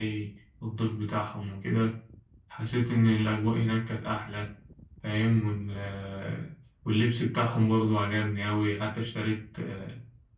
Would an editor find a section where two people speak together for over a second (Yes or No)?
No